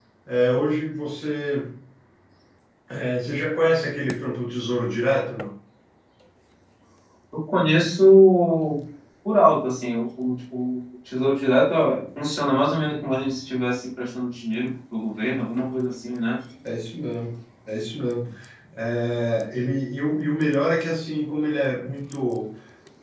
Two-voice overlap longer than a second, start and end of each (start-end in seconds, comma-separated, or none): none